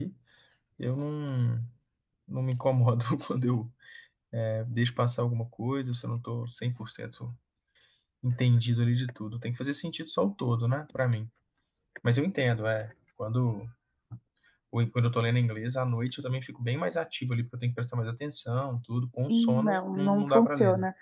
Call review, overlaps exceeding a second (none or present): present